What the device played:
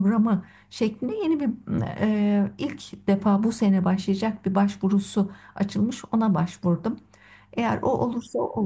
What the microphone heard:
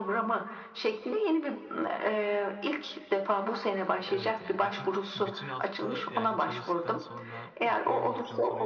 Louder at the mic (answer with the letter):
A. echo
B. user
A